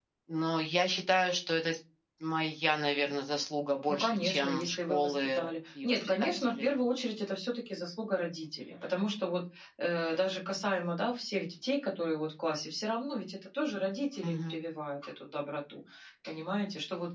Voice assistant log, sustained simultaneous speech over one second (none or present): present